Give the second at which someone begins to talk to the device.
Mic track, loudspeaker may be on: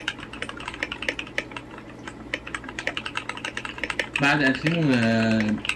4.2 s

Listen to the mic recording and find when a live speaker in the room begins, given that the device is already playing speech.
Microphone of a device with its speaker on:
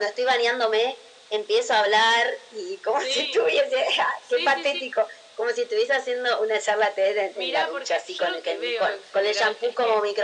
none

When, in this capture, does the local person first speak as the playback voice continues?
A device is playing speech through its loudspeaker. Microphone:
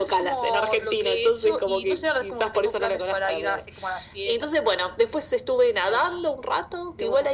none

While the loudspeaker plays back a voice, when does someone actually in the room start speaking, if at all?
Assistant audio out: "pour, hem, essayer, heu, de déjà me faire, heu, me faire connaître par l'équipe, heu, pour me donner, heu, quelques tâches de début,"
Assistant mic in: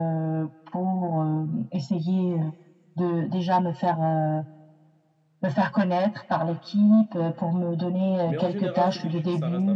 8.2 s

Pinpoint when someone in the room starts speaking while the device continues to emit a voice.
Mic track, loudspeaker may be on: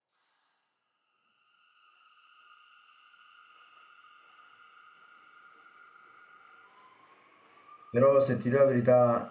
7.9 s

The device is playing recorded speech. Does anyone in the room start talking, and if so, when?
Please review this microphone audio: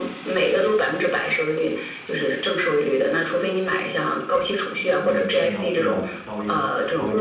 4.7 s

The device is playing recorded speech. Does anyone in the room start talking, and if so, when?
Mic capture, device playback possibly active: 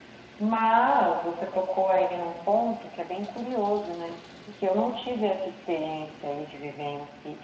none

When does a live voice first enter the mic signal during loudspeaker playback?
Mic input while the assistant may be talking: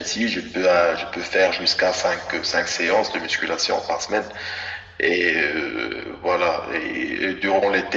none

